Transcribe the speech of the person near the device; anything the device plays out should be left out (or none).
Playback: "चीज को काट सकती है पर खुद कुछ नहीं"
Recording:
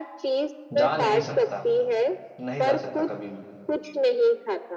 जा नहीं सकता नहीं जा सकता कभी भी